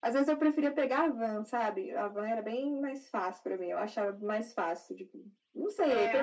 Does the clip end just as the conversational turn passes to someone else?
No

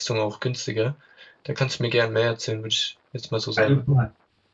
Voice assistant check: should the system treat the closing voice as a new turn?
Yes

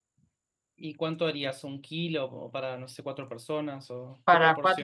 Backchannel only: No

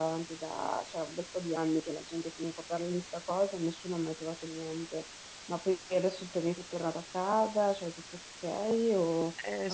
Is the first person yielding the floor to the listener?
Yes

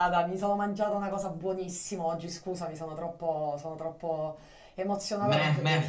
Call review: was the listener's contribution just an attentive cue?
No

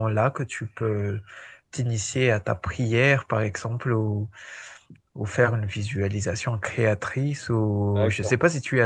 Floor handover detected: No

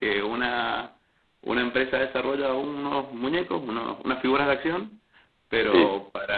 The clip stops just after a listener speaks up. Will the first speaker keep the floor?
Yes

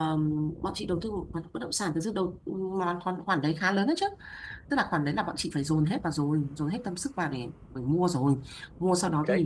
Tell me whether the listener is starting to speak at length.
No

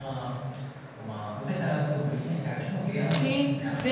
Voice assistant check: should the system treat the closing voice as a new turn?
Yes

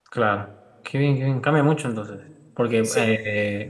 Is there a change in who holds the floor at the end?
No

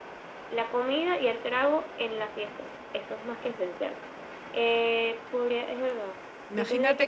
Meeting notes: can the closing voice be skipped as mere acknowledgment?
No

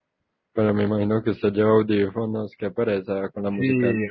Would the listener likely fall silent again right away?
No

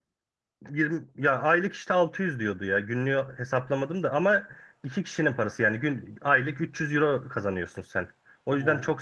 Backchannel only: No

